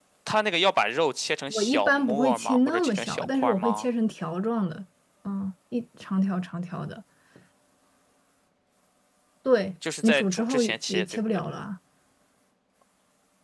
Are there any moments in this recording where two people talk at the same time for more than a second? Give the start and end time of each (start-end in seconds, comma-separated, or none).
1.5-3.8, 10.0-11.4